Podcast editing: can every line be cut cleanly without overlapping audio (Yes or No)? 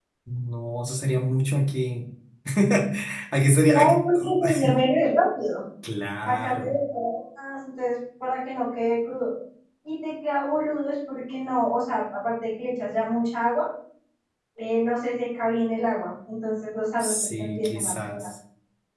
No